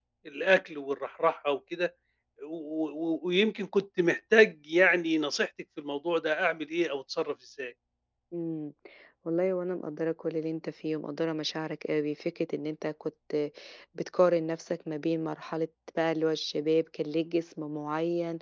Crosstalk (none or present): none